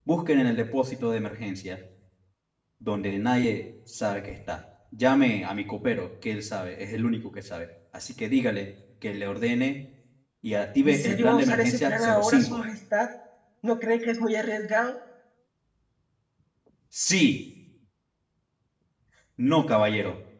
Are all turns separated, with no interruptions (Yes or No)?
No